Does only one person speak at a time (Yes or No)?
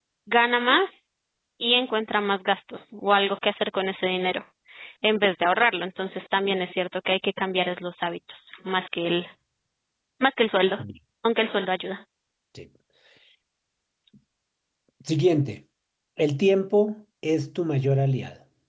Yes